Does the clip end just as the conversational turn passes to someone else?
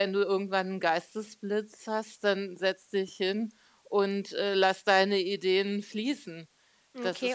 Yes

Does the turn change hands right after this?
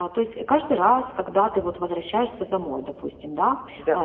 No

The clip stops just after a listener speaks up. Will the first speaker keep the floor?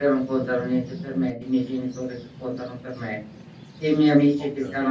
Yes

